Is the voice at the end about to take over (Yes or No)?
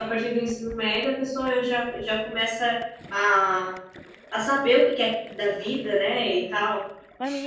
Yes